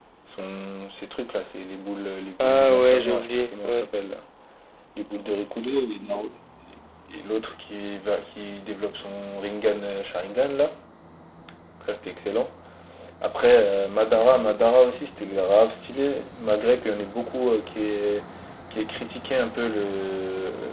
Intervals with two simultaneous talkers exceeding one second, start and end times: 2.4-3.9

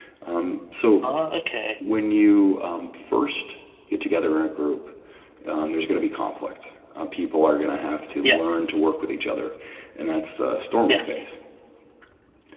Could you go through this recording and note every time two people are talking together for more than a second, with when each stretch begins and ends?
none

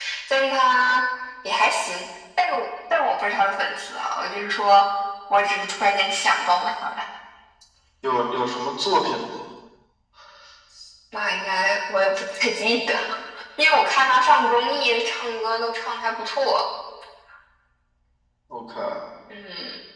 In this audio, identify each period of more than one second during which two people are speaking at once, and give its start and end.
none

